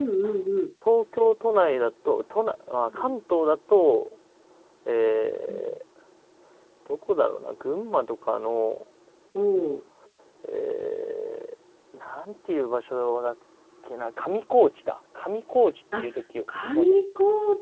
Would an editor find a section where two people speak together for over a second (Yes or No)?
No